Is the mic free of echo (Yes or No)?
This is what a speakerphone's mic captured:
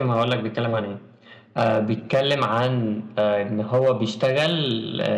Yes